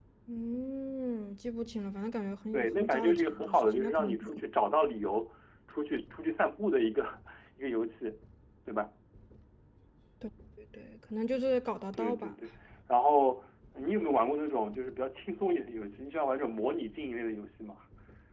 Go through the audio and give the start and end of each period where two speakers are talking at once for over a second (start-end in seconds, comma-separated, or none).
2.5-4.2